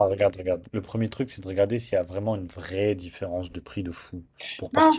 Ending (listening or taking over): taking over